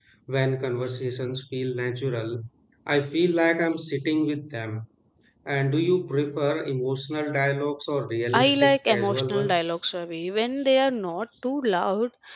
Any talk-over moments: Yes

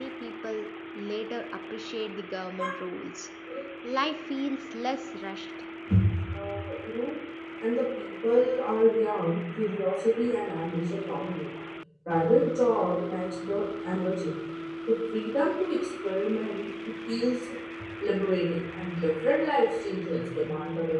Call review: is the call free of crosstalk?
Yes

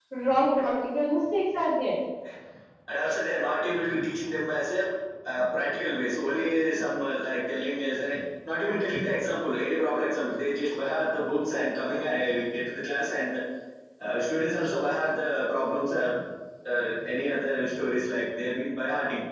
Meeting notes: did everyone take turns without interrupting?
Yes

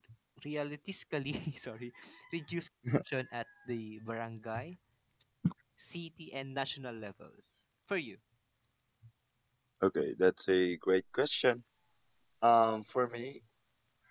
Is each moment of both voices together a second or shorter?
Yes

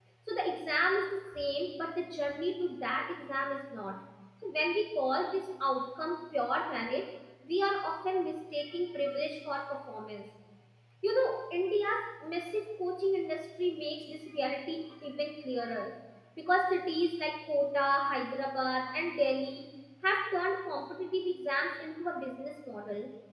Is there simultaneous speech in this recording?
No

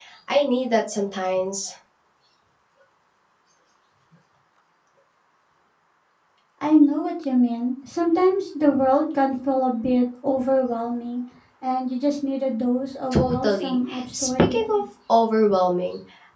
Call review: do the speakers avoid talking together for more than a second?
No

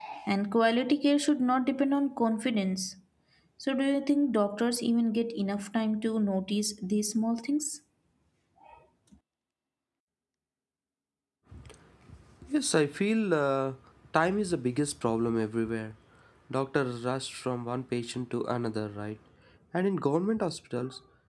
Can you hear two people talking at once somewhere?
No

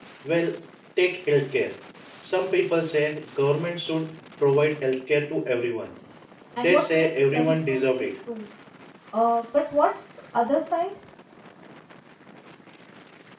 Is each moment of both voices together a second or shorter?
No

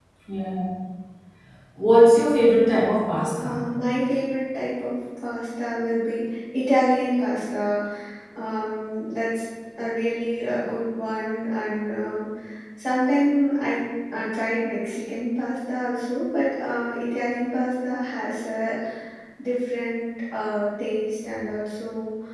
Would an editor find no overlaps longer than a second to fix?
Yes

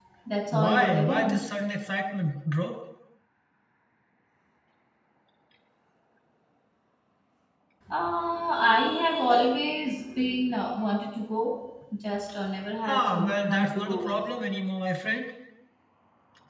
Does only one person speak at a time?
No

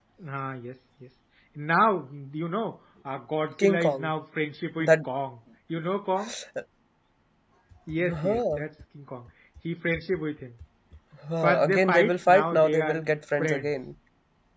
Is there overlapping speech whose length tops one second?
Yes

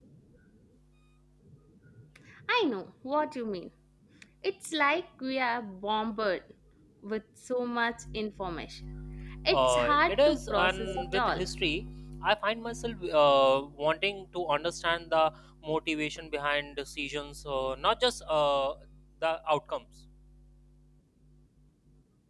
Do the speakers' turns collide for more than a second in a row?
Yes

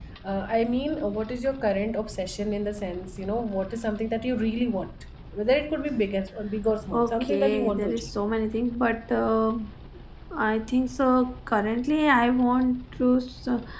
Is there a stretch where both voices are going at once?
Yes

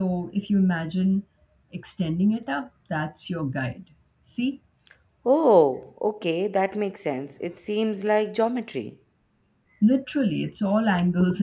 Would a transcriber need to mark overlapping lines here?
No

